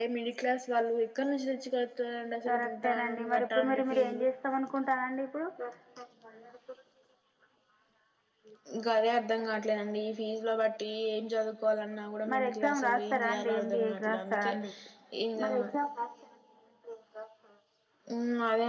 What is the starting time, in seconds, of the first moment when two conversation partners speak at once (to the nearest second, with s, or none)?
2 s